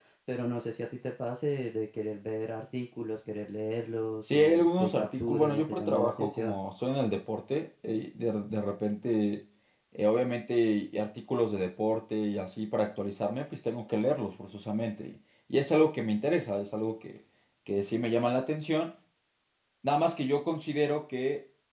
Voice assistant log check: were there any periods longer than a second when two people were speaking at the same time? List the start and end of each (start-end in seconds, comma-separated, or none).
4.2-6.5